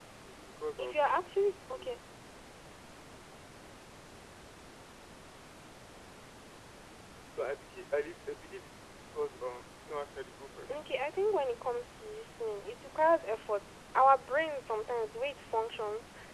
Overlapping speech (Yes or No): Yes